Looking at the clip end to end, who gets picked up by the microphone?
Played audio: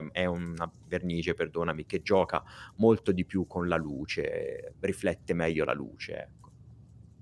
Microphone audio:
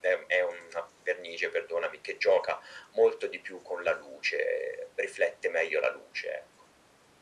echo only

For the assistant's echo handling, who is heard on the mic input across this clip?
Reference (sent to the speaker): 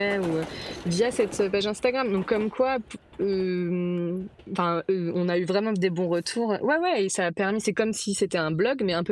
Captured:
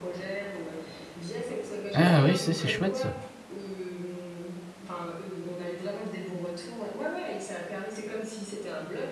both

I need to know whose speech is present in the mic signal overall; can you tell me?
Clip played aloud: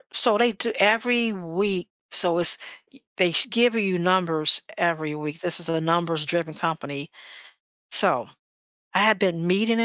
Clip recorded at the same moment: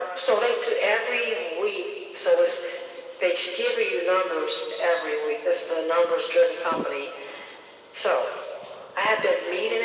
echo only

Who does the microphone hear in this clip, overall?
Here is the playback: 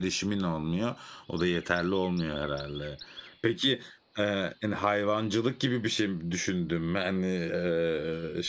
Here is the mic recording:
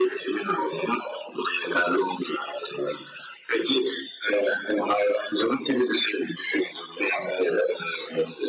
echo only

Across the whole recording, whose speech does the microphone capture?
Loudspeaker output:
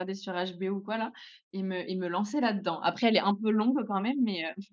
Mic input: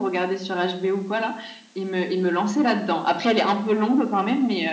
echo only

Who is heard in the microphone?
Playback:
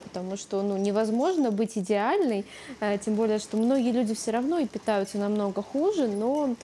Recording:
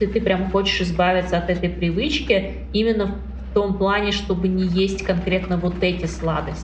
user only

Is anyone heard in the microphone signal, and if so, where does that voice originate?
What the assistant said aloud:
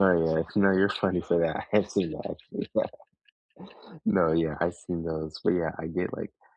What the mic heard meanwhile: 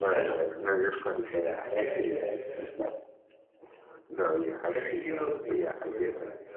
both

